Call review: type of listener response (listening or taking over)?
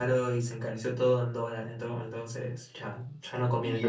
taking over